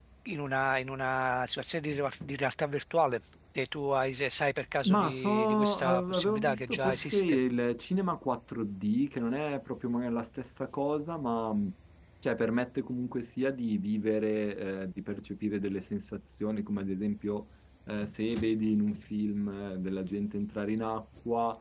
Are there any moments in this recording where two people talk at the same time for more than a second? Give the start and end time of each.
4.8-7.4

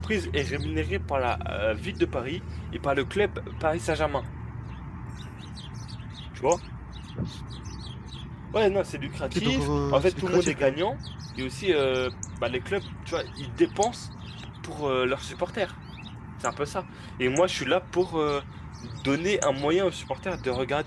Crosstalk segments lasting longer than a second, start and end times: 9.2-10.8

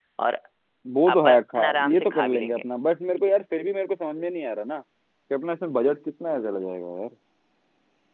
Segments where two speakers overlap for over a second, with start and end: 1.2-2.6

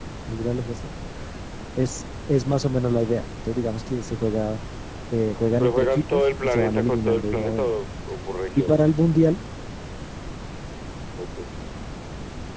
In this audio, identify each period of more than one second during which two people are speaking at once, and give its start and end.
5.6-7.7

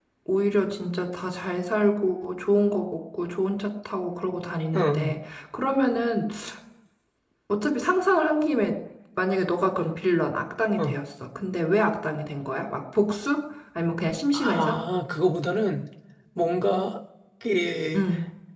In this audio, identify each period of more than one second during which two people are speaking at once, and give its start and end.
none

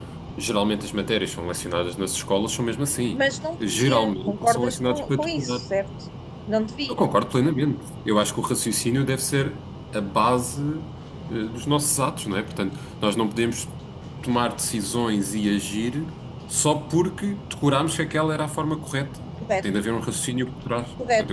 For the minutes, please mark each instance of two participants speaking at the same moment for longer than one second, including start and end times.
3.7-5.6

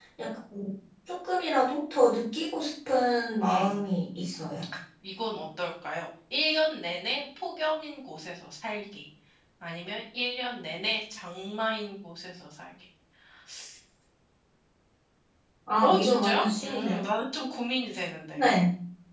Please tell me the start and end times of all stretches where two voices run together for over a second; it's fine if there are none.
15.8-17.0

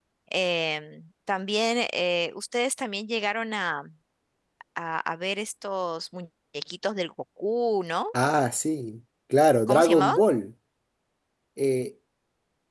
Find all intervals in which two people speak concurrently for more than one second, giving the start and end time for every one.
none

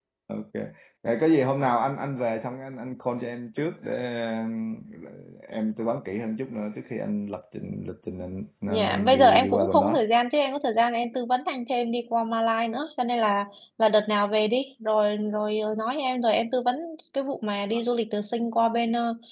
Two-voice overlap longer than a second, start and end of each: 8.7-10.0

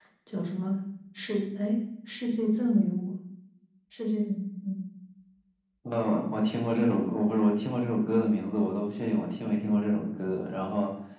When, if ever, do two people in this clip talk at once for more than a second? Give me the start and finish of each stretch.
none

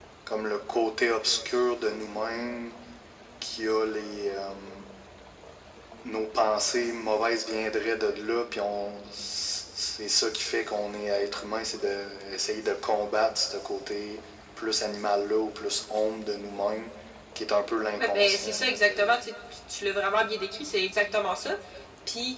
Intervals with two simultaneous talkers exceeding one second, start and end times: 18.0-19.2

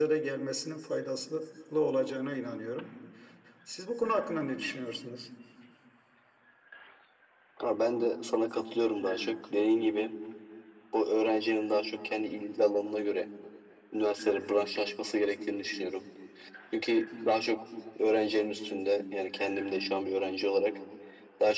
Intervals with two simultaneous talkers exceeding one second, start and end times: none

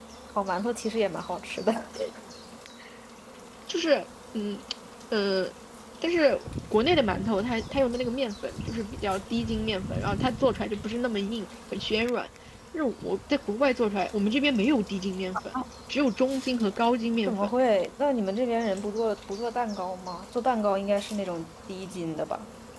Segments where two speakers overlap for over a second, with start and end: none

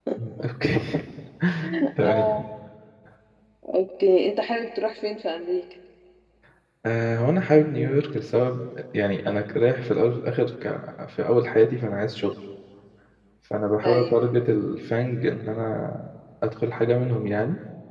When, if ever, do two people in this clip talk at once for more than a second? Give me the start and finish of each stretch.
none

